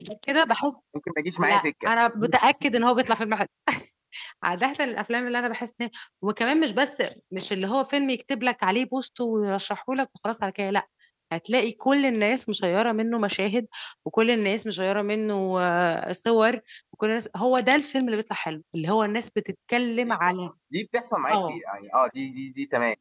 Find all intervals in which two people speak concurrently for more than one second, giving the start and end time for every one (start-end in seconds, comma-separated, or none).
none